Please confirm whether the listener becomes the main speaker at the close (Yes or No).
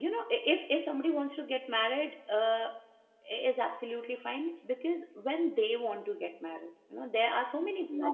No